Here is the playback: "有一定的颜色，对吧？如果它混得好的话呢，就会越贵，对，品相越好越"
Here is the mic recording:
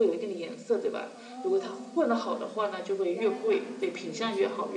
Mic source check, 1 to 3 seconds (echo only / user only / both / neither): both